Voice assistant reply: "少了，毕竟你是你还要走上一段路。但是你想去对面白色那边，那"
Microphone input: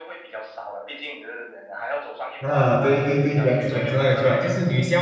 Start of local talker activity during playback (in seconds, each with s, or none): 2.4 s